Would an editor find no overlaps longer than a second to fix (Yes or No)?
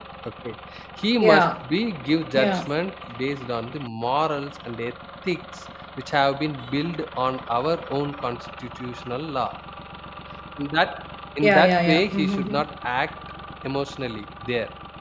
No